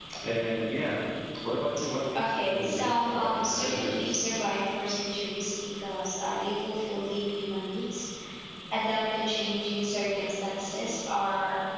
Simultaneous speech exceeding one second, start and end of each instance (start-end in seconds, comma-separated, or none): 2.1-4.1